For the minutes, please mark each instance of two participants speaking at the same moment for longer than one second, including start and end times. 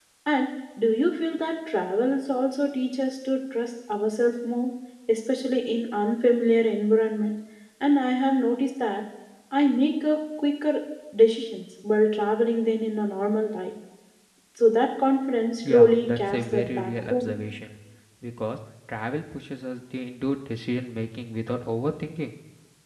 15.7-17.3

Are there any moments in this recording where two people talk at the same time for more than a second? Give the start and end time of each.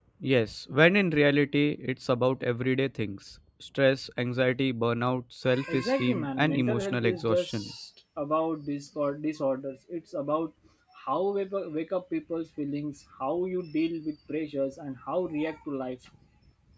5.7-7.7

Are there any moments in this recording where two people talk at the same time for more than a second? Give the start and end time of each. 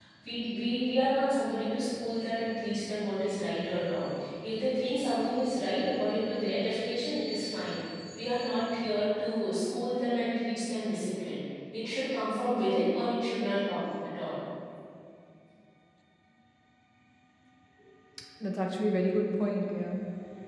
none

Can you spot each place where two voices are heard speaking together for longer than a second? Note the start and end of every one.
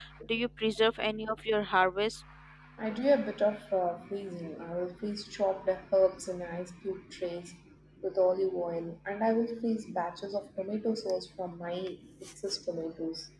none

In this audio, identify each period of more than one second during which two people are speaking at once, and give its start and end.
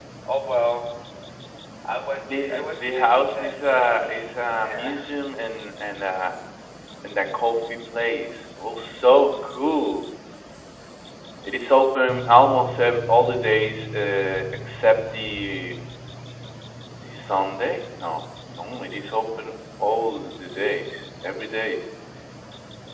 2.2-4.2

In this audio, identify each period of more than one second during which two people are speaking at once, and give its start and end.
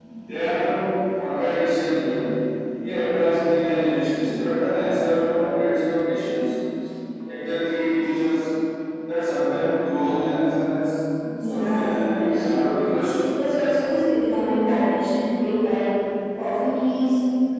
11.4-12.8

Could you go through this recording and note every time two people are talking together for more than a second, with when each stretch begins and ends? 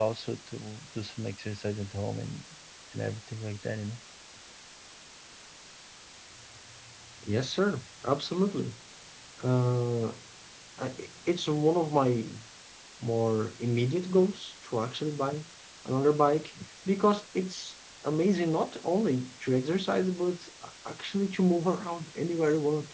none

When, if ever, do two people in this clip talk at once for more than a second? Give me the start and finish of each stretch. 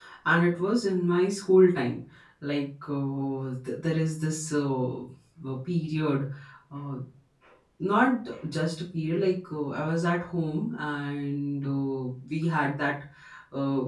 none

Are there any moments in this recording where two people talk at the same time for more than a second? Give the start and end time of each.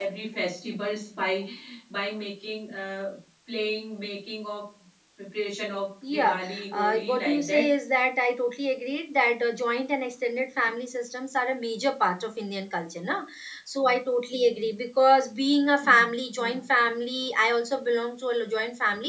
6.1-7.7

